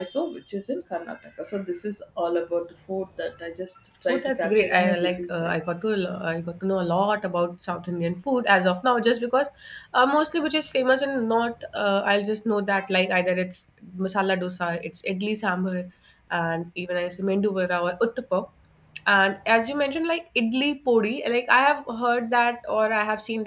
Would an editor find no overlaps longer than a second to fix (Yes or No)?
No